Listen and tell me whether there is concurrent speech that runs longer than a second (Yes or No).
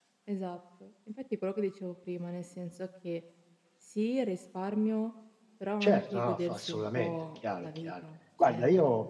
Yes